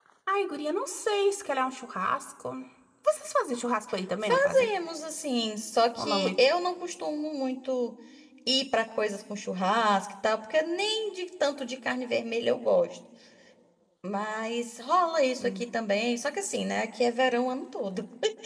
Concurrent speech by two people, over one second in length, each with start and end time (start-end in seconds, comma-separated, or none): none